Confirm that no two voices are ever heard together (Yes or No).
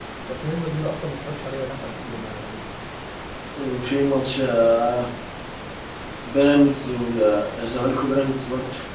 Yes